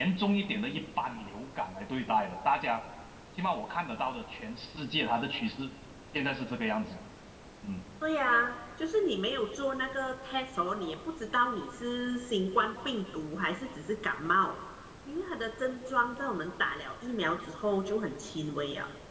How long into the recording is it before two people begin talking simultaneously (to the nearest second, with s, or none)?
none